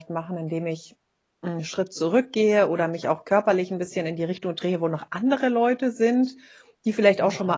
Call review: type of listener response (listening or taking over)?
listening